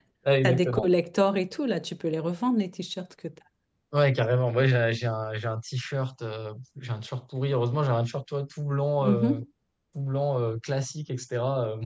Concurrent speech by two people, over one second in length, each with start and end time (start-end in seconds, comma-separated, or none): none